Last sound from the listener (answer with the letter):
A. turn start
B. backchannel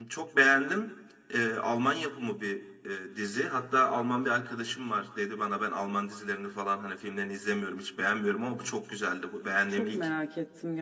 A